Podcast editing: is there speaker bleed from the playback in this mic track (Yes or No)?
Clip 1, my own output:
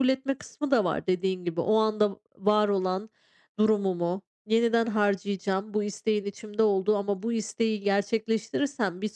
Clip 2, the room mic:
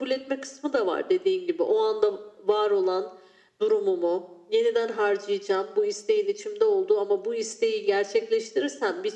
Yes